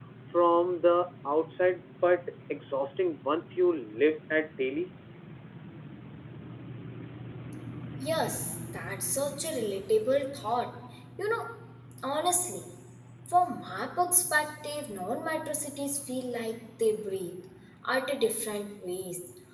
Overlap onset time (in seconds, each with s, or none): none